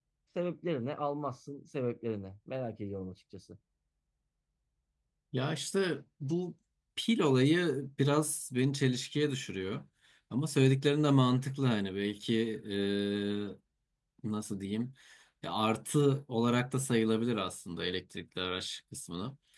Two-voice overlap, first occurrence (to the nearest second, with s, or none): none